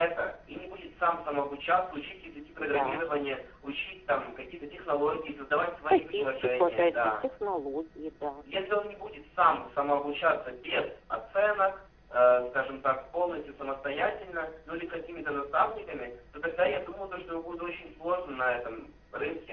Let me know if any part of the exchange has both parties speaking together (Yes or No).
Yes